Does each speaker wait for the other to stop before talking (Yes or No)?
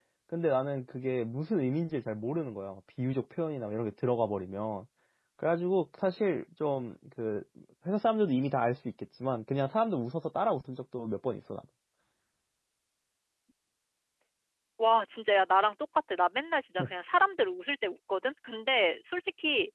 Yes